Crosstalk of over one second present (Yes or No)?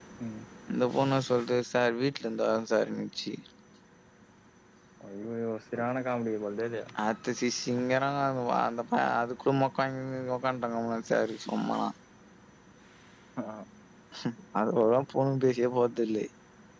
No